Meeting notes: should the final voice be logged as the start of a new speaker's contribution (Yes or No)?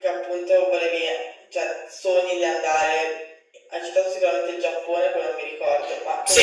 Yes